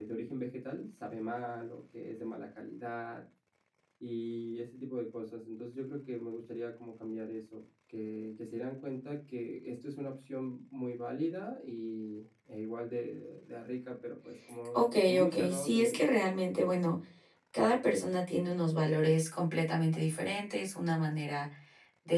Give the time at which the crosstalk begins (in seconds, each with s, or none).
14.7 s